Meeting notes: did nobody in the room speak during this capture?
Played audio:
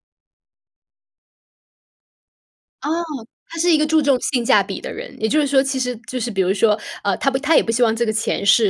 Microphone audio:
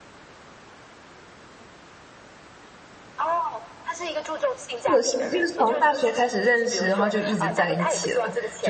No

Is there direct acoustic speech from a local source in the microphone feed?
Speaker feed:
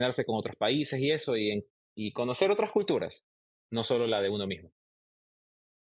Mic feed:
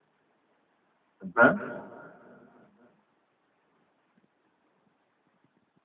Yes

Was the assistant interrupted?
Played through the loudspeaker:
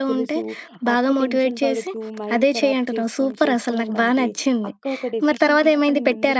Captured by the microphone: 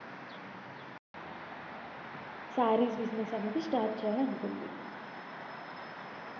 Yes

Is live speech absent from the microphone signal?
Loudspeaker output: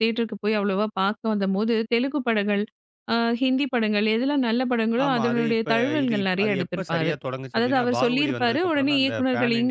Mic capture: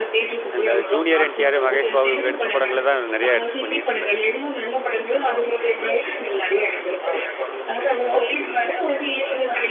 No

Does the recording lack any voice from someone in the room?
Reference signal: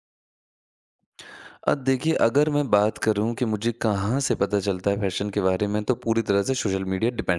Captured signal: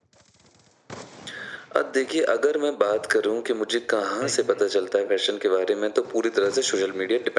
No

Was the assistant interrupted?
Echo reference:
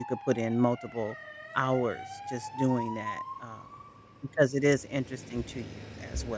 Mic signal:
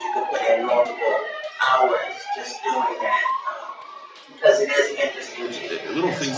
Yes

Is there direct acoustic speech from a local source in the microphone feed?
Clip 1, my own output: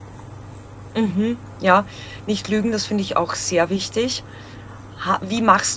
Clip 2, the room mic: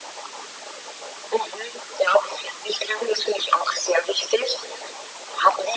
No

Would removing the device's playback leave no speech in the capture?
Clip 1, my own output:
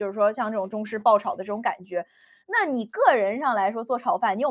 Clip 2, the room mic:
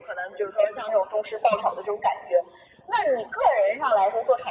Yes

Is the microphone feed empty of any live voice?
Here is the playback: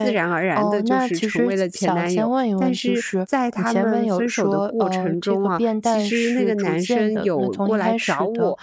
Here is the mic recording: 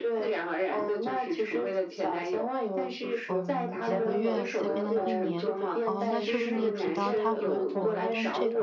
No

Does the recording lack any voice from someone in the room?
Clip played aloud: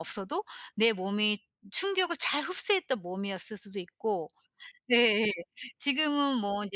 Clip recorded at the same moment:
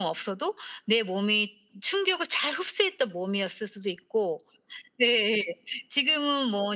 Yes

